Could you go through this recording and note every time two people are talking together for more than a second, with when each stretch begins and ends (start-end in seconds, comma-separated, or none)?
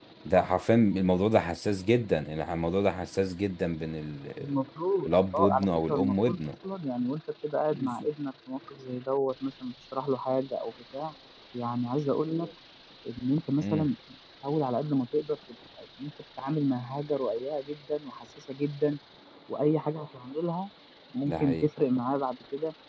5.0-6.4